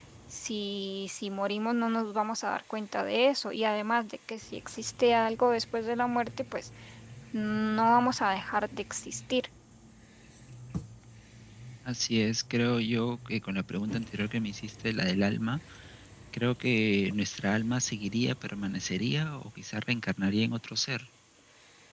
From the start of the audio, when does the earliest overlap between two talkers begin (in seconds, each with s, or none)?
none